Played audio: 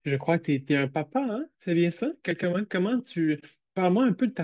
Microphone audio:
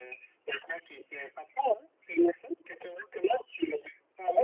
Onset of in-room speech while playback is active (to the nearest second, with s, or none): none